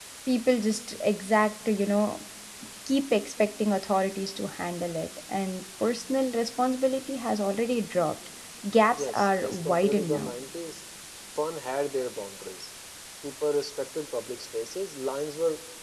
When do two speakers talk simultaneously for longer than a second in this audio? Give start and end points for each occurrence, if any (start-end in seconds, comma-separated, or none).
8.9-10.3